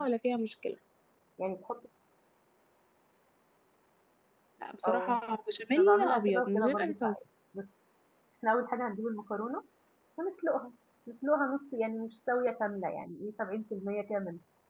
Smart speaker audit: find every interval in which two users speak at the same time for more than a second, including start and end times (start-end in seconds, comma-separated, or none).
5.8-7.2